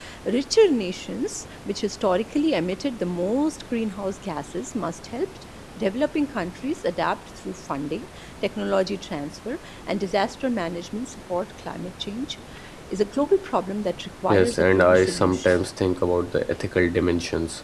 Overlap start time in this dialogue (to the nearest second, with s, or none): 14 s